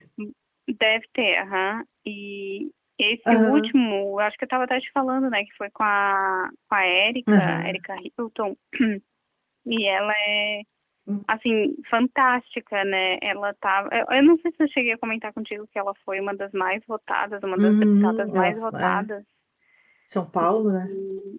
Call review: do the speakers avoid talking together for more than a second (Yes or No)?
No